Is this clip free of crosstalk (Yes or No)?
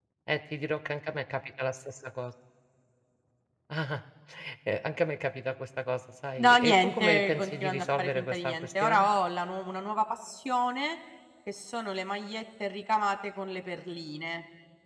No